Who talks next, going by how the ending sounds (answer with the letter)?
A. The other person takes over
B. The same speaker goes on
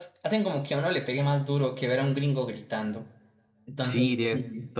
A